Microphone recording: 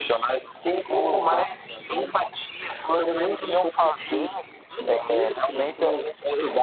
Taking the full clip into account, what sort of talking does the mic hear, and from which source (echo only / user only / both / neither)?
echo only